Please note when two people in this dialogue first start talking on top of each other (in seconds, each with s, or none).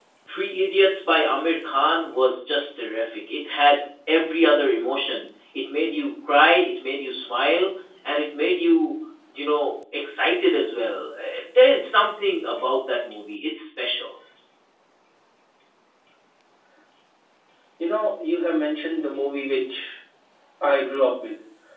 none